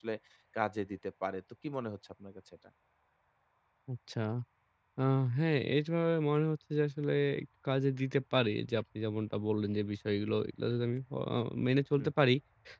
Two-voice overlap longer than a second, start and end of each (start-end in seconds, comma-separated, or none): none